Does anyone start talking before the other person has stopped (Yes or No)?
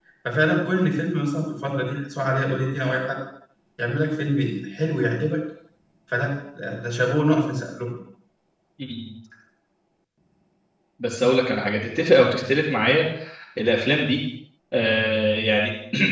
No